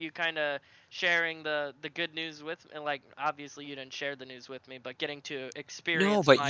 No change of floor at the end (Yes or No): No